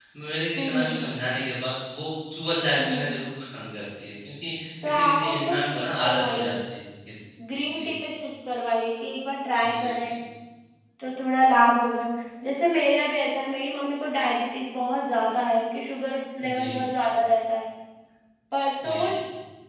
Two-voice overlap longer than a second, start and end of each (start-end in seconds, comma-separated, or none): 4.8-6.5